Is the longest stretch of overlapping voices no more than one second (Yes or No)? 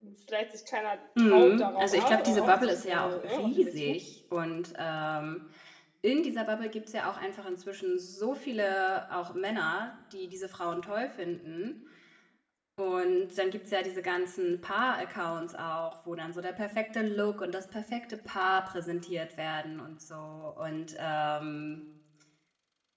No